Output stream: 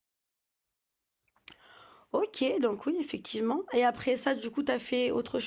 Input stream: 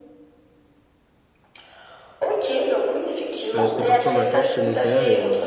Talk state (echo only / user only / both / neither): both